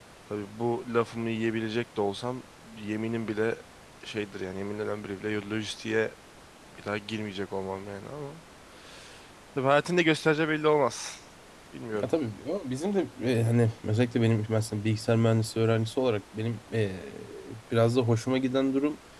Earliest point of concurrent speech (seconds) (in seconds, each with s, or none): none